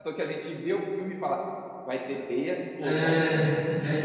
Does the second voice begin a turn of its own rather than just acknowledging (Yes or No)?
Yes